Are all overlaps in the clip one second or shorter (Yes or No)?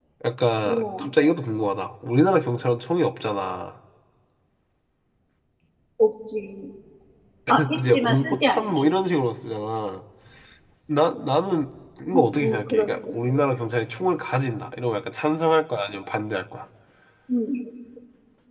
No